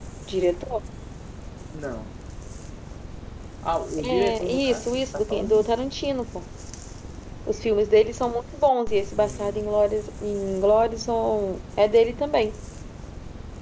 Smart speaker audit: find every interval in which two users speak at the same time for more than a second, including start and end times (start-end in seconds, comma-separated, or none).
4.0-5.7